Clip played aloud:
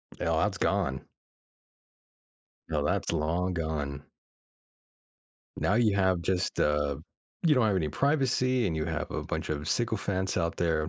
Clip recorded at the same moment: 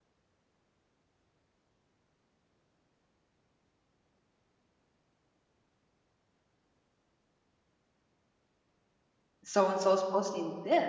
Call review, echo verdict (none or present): none